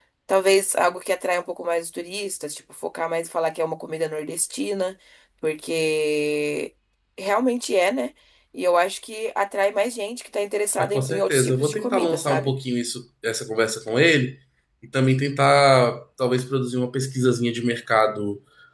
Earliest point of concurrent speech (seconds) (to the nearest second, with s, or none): 11 s